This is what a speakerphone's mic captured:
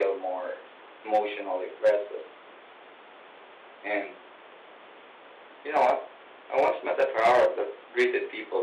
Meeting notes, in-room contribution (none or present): none